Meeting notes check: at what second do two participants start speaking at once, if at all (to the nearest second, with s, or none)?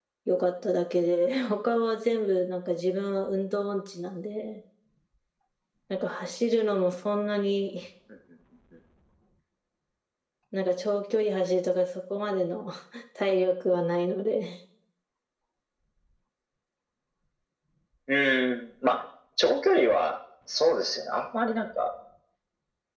none